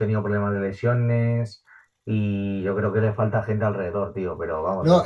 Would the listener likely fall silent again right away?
No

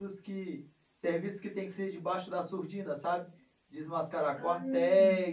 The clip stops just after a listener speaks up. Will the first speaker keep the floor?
Yes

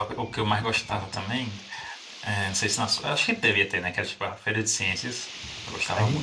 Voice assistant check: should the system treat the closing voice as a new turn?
Yes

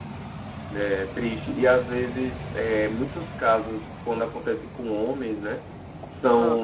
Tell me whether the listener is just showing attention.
Yes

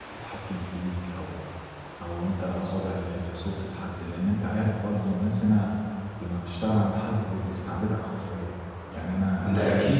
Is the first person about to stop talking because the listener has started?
No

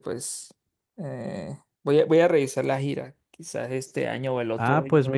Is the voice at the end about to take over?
Yes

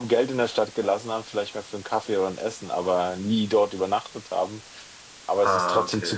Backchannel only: Yes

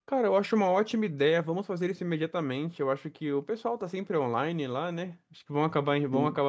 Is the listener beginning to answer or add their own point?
No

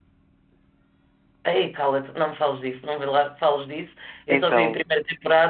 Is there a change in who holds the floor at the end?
No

